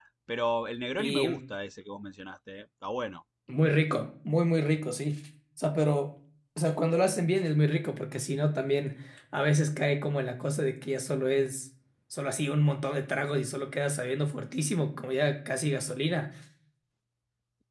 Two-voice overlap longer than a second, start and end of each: none

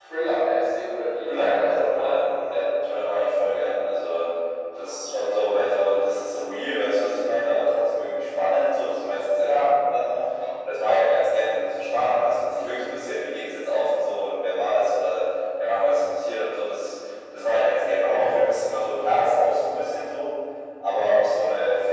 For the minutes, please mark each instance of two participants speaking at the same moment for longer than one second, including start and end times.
1.3-2.6

